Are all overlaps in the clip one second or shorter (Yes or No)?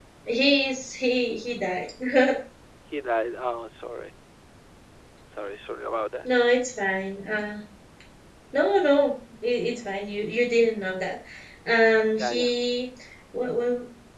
Yes